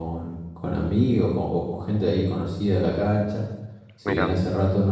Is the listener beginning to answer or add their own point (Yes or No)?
No